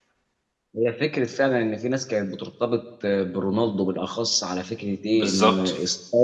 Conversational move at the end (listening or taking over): listening